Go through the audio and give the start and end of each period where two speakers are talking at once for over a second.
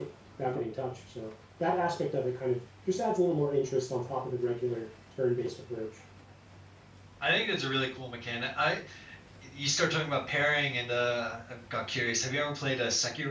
none

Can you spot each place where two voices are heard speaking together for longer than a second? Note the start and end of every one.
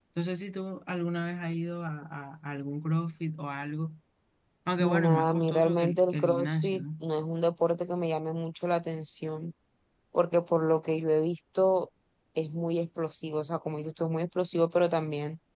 4.8-6.8

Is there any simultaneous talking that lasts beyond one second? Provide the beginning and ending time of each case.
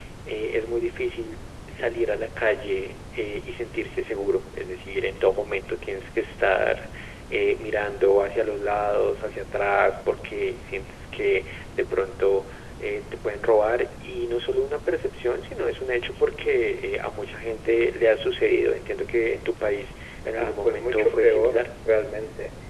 20.4-21.7

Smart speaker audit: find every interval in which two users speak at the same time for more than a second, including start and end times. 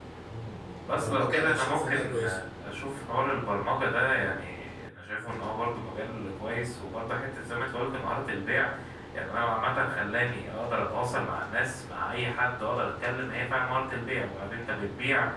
0.9-2.2

